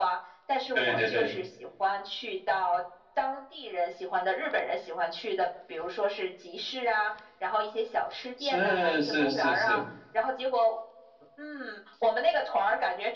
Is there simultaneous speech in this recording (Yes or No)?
Yes